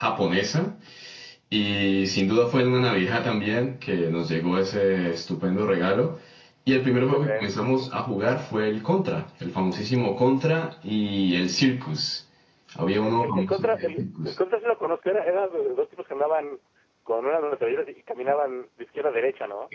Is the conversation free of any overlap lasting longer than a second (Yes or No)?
No